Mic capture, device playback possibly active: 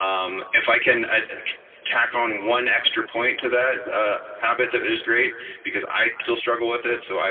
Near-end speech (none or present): present